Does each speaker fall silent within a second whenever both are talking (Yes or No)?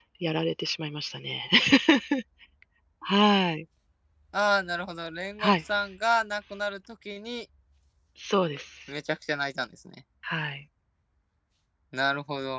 Yes